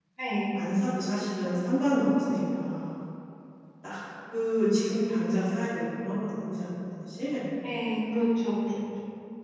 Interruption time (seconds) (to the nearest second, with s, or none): none